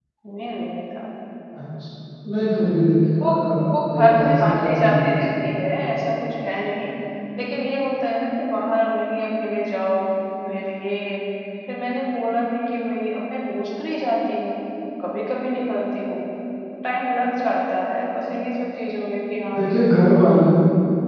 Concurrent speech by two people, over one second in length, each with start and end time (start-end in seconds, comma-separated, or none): 3.9-5.4